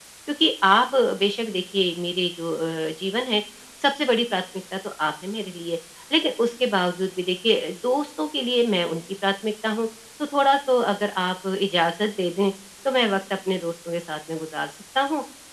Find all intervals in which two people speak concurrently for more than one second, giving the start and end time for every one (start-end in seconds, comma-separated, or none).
none